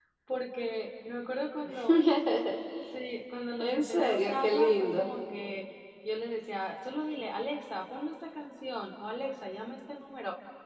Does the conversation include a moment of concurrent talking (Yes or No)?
Yes